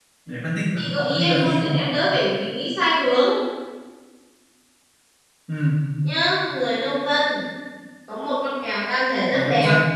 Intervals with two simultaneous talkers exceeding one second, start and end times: 0.8-2.0

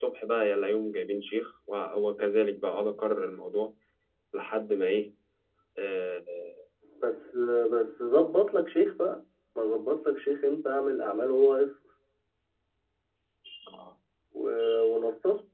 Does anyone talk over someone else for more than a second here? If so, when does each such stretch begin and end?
none

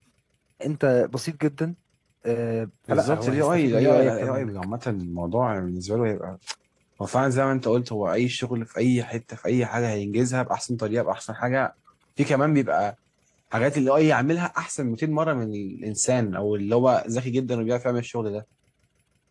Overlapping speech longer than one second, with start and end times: 2.9-4.5

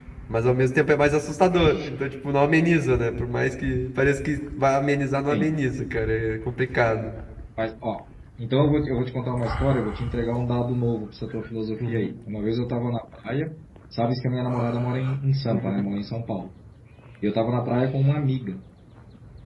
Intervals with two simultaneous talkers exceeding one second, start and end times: none

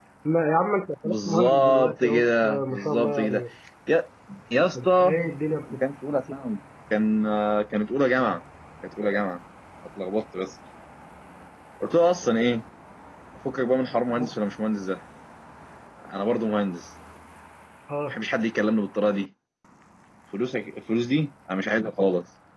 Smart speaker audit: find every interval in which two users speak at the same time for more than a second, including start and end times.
1.0-3.4

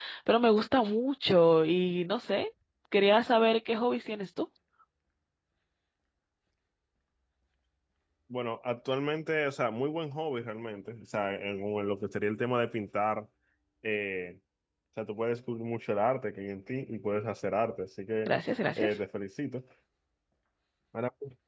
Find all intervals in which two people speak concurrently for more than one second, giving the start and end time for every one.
none

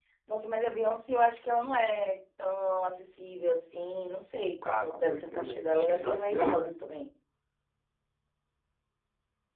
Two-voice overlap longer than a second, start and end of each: 4.6-6.6

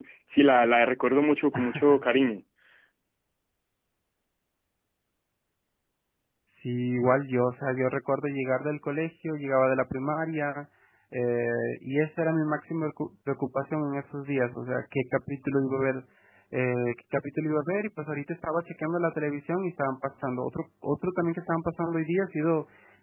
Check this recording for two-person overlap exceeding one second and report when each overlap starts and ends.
none

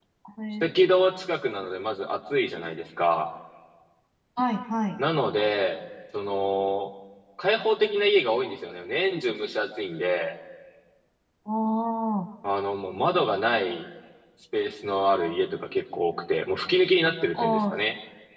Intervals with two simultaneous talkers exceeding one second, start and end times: none

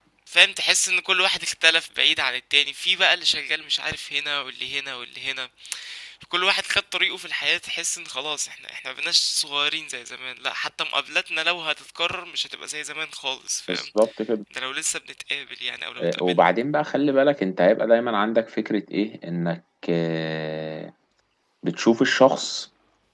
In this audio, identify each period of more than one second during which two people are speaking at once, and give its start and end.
none

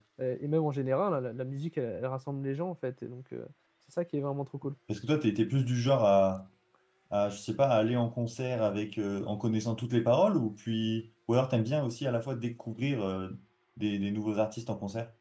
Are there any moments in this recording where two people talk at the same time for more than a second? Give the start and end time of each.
none

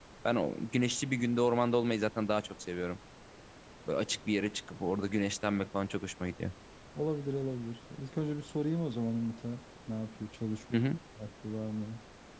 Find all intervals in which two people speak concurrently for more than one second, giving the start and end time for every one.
none

